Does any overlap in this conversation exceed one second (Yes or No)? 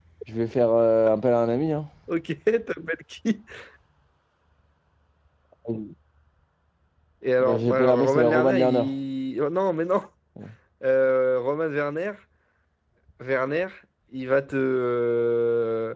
Yes